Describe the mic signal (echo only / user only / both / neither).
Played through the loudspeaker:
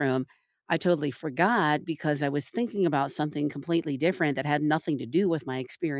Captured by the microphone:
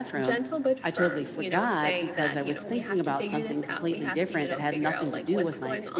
both